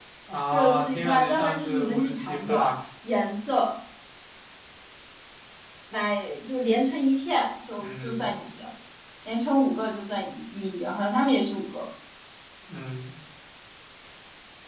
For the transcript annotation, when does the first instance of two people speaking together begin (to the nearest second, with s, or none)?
1 s